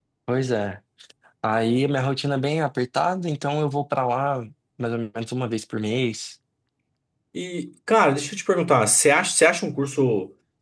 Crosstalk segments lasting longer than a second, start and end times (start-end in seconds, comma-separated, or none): none